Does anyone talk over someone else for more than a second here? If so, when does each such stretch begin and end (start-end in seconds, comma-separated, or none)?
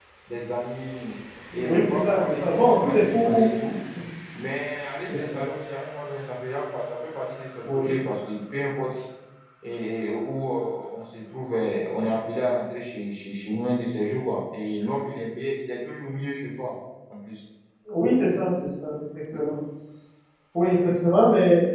1.5-3.5